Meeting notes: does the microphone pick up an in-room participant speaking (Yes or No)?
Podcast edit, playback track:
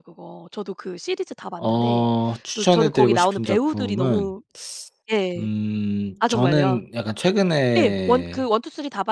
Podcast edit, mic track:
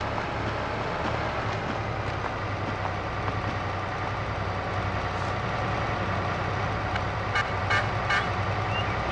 No